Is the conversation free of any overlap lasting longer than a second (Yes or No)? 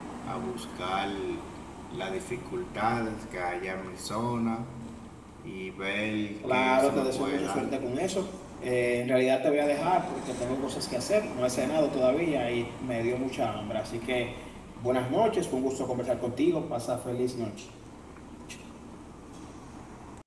No